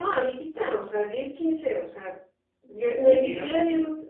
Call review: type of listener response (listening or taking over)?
listening